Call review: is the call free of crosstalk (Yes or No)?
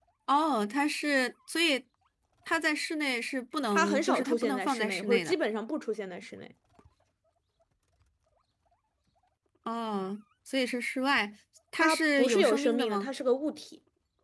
No